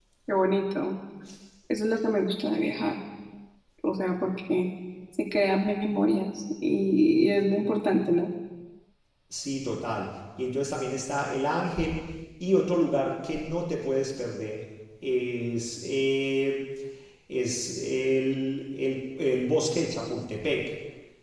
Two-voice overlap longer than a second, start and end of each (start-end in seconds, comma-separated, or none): none